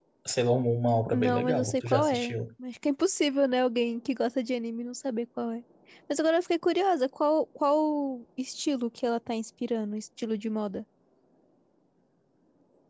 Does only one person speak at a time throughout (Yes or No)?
No